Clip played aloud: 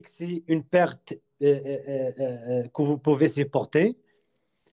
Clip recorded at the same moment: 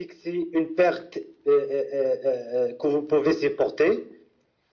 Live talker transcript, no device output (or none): none